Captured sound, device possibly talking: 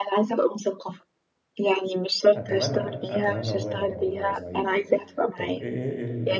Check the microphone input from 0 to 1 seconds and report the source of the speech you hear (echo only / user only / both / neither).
echo only